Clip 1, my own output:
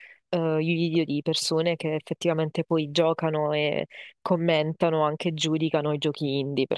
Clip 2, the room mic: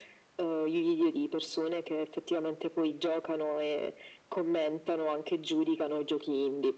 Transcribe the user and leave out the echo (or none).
none